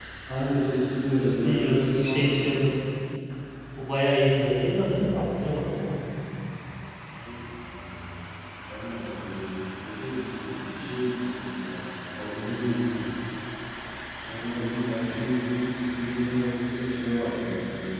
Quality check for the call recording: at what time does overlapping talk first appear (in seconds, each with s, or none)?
1.0 s